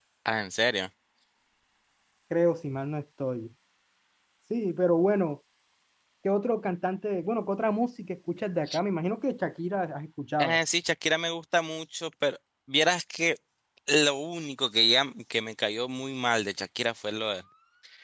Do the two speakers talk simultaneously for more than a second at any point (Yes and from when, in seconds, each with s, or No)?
No